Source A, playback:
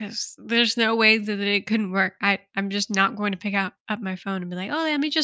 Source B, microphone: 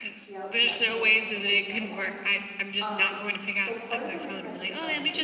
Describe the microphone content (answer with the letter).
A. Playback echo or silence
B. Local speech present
B